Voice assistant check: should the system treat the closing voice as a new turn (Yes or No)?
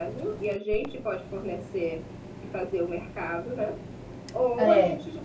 No